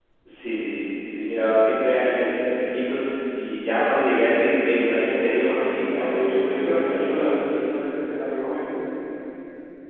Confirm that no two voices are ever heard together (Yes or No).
No